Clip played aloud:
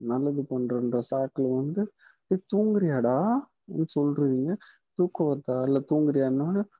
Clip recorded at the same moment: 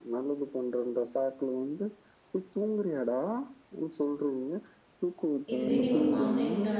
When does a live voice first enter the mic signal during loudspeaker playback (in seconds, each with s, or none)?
5.5 s